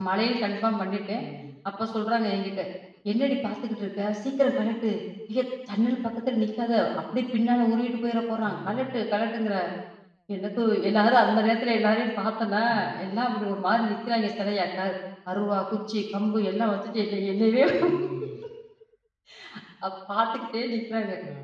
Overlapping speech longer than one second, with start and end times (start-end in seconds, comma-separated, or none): none